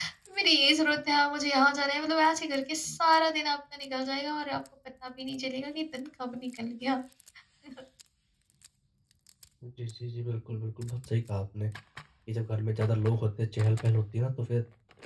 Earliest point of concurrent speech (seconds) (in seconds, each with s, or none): none